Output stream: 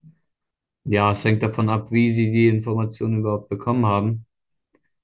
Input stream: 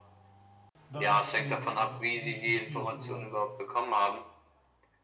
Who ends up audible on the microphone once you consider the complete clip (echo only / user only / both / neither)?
both